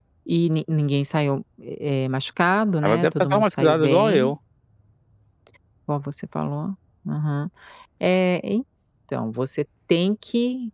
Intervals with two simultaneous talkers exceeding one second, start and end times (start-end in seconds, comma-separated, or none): 2.8-4.3